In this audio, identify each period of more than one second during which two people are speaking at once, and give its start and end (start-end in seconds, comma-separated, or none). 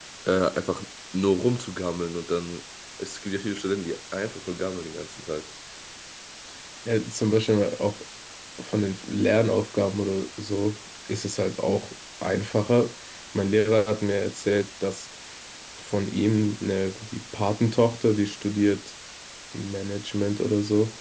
none